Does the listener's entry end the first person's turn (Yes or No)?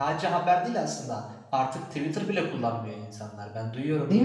No